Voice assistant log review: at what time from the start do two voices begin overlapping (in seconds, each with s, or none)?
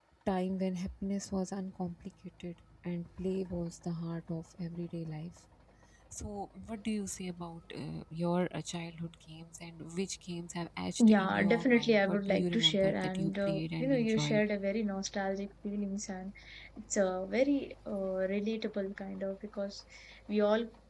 11.0 s